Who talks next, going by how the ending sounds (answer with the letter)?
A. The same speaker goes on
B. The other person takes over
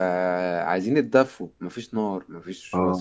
A